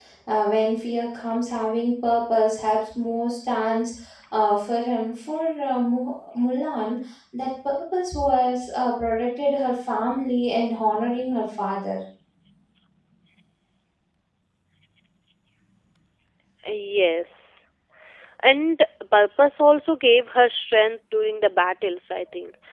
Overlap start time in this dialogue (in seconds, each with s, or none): none